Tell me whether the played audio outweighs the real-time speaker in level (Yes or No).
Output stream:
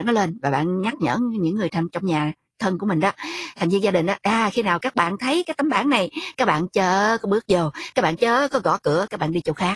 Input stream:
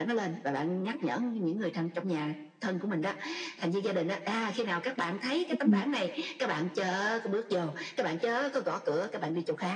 No